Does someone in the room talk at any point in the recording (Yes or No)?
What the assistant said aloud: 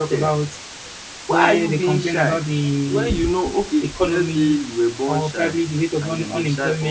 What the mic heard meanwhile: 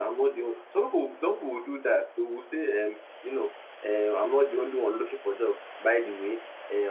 Yes